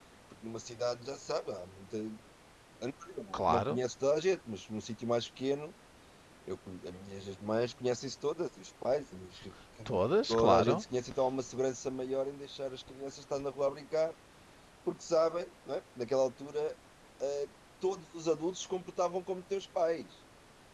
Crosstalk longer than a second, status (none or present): none